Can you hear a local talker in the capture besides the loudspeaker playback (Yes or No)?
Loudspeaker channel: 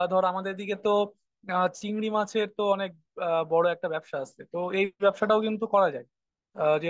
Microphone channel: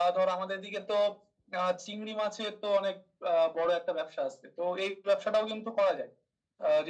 No